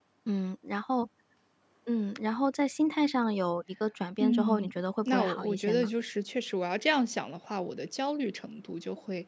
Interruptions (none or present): present